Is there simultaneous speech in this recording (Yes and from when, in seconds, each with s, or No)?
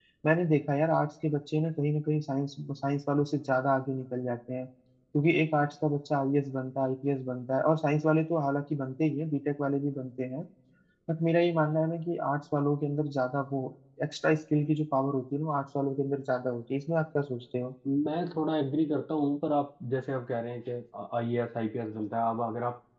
No